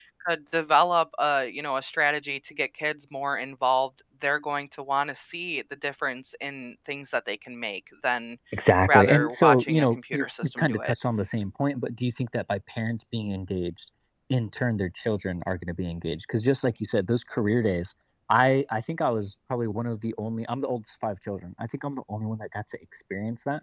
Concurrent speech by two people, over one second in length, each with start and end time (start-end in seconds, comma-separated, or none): 8.9-10.9